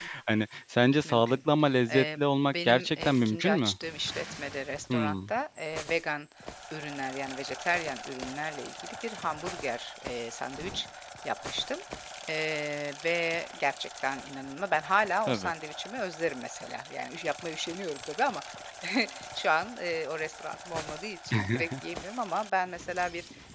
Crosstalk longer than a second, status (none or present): present